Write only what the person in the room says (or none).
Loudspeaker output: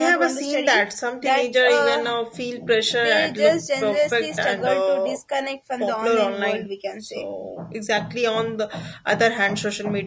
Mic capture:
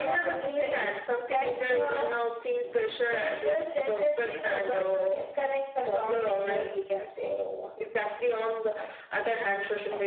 none